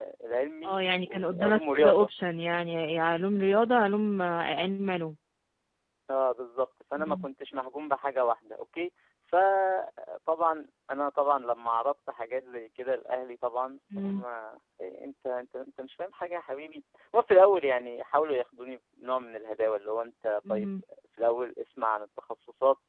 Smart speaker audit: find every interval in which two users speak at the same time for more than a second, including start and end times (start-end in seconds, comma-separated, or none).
0.6-2.1